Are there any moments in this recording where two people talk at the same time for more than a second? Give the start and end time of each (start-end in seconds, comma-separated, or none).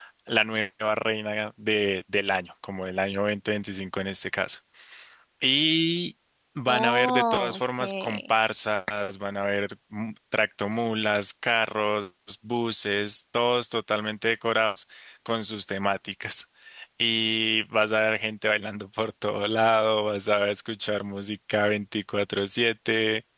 6.7-8.3